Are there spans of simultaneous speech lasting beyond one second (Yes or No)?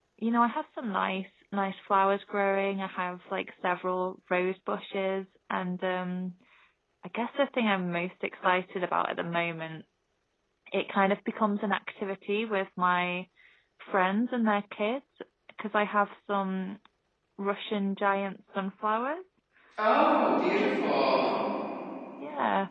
No